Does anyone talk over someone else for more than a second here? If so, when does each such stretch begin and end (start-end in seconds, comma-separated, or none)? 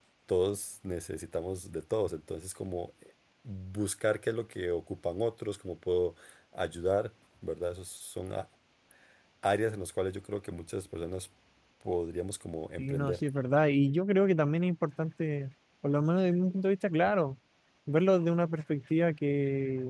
none